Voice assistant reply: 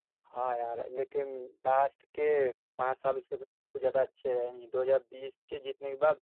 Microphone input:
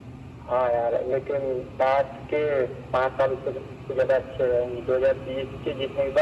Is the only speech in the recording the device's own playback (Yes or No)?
Yes